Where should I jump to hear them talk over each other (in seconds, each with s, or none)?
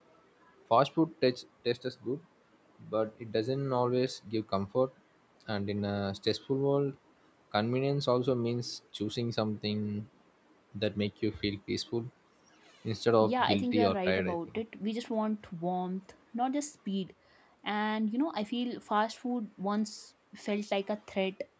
13.2 s